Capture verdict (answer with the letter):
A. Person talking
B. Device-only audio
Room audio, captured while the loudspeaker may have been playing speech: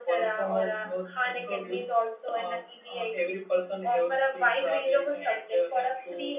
A